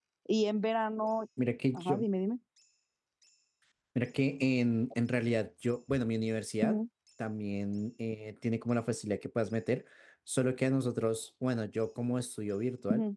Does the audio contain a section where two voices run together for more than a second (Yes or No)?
No